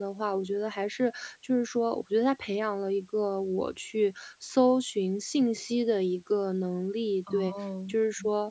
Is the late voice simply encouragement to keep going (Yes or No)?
Yes